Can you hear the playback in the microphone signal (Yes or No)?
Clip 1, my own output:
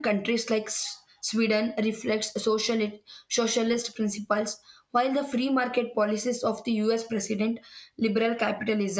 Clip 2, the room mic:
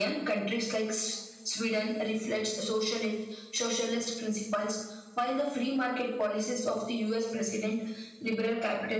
Yes